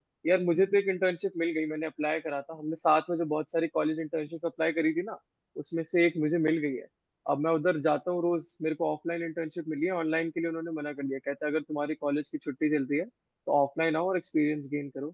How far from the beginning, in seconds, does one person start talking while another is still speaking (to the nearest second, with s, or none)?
none